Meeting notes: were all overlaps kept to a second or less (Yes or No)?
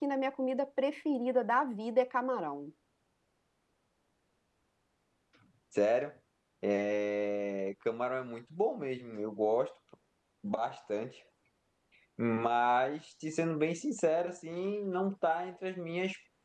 Yes